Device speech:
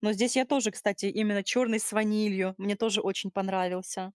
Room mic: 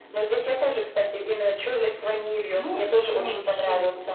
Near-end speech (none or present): present